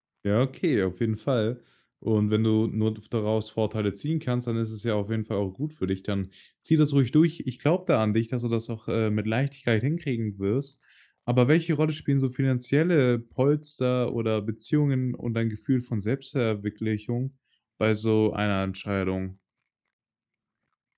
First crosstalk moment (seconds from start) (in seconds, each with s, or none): none